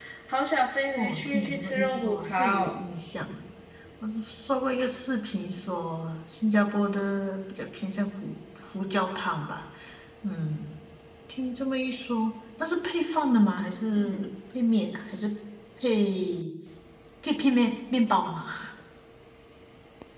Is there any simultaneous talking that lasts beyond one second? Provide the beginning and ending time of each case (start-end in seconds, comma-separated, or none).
0.9-2.8